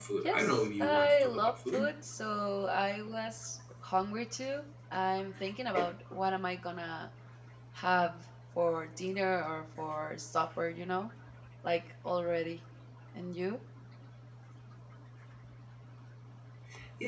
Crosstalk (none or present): present